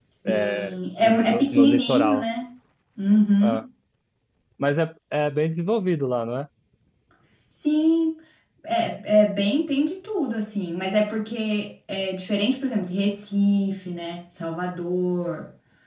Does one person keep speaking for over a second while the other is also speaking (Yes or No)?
Yes